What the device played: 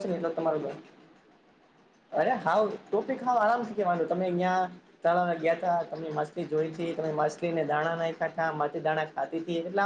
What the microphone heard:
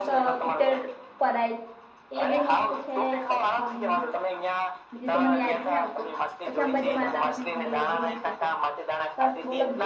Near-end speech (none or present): present